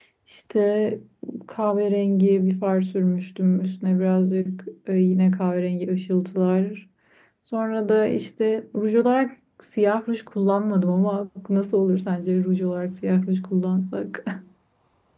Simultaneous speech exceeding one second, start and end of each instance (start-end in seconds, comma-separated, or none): none